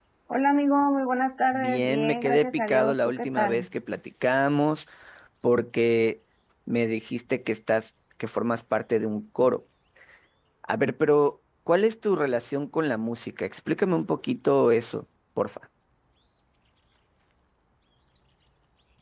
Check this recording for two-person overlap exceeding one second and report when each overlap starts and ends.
1.5-3.7

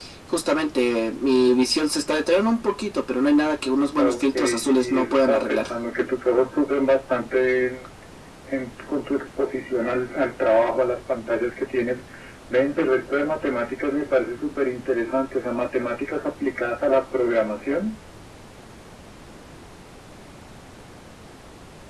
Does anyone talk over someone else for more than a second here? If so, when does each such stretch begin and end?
4.0-5.6

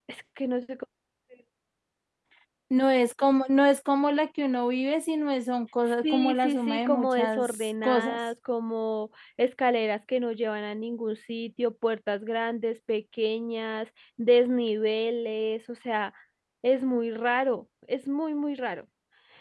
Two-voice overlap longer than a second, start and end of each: 6.0-8.2

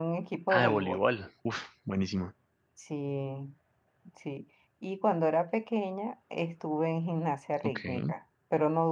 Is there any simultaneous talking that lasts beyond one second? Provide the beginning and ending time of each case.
none

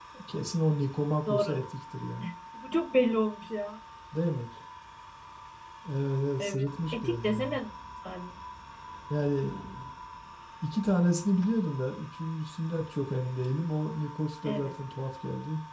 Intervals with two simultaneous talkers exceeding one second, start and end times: 6.4-7.6

